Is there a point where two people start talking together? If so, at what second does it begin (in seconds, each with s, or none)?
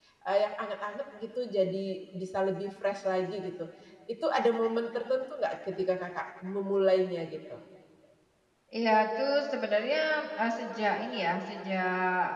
none